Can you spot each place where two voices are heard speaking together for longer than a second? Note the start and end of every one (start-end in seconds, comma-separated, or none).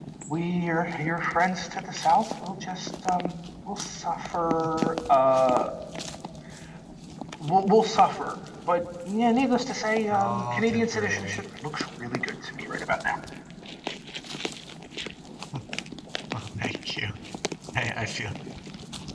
10.1-11.4